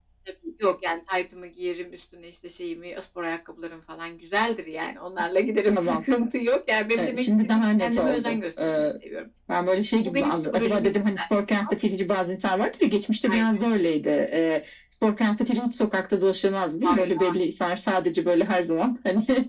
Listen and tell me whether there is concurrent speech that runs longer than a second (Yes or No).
Yes